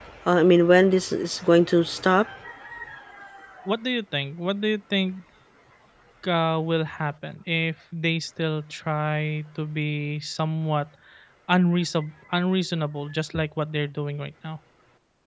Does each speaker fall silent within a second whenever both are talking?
Yes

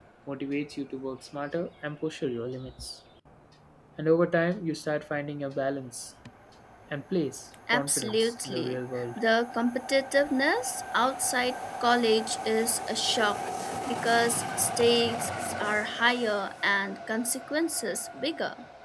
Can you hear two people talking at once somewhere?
Yes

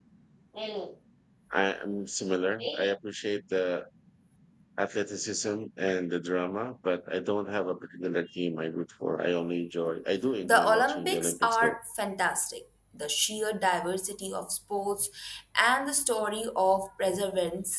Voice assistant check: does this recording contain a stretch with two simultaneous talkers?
Yes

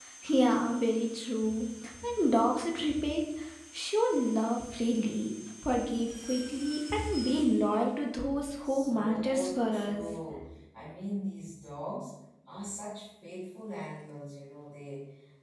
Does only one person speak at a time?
No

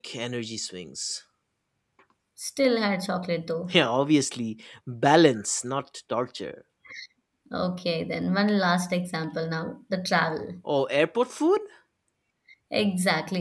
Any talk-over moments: No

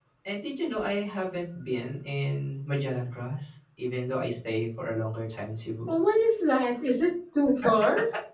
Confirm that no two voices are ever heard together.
Yes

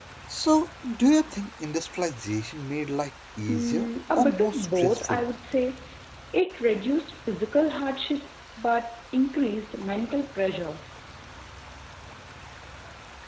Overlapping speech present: Yes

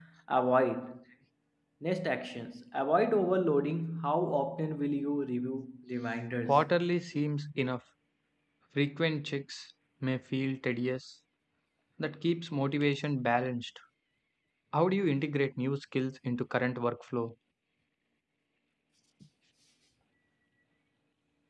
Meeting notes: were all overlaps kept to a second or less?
Yes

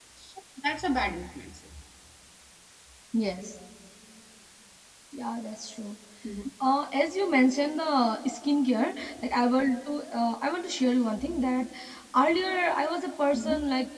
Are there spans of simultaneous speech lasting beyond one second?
No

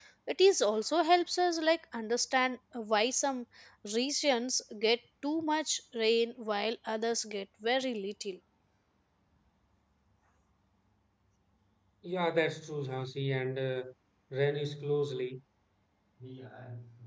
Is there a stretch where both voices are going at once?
No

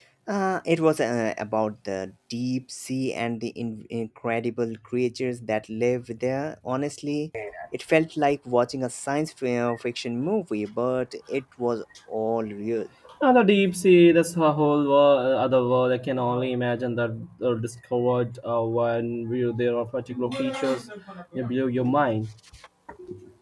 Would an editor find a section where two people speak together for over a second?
No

